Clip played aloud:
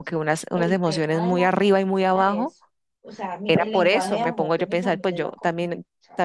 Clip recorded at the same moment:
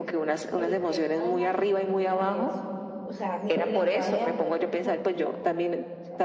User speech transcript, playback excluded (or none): none